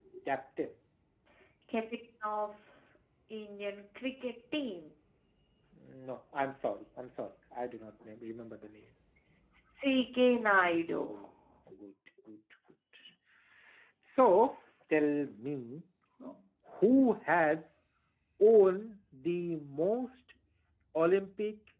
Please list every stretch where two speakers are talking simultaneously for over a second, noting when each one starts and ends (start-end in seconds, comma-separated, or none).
none